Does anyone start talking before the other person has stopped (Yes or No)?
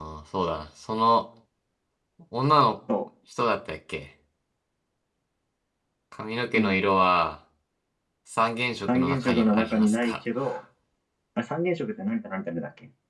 Yes